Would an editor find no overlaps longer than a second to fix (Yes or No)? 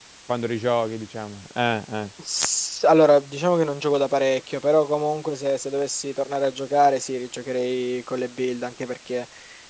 Yes